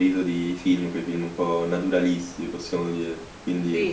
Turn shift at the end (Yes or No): Yes